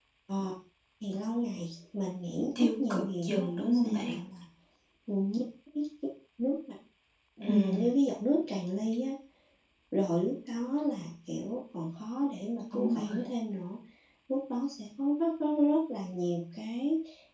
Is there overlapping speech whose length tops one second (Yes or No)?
Yes